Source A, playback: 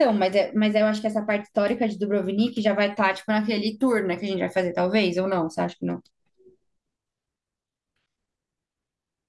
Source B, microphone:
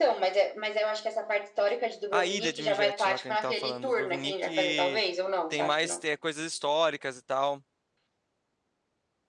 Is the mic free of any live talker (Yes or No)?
No